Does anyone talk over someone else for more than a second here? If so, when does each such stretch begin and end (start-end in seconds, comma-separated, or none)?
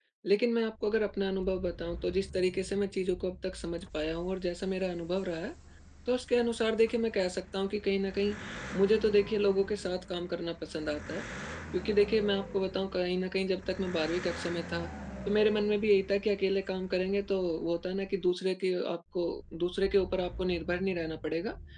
none